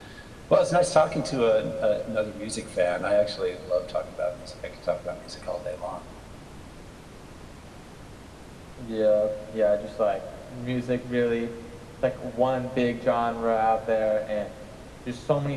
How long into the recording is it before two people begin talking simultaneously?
none

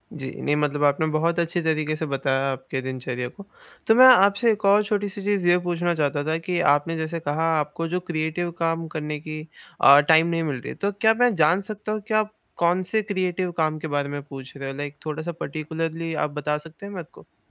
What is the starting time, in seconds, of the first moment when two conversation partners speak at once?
none

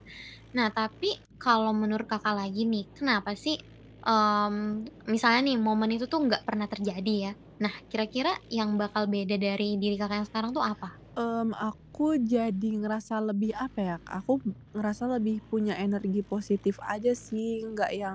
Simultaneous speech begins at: none

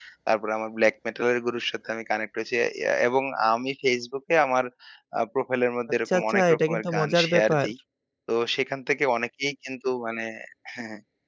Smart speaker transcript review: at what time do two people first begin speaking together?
6.1 s

